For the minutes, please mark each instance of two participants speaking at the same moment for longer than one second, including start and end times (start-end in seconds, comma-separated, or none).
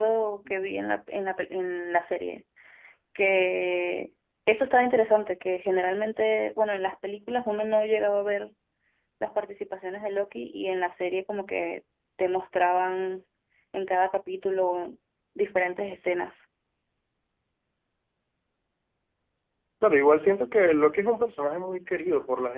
none